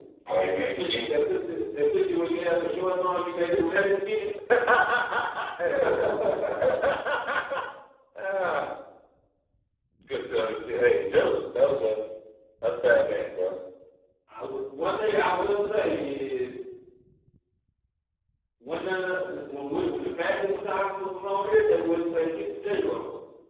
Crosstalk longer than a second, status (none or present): none